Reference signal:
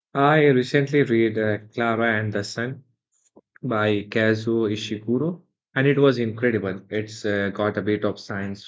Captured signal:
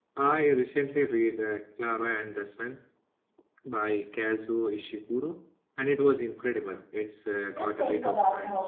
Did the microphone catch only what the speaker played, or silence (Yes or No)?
No